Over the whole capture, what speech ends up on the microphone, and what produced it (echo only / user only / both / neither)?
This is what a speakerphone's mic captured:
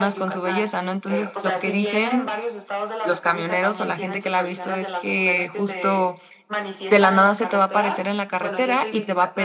both